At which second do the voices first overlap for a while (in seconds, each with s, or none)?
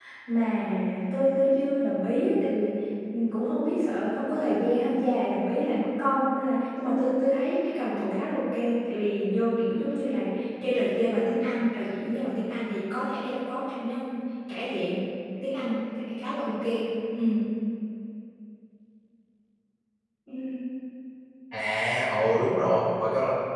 none